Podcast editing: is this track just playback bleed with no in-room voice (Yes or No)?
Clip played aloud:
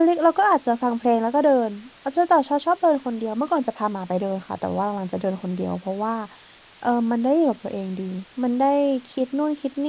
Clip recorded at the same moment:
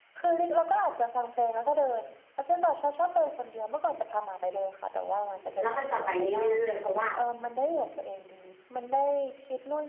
No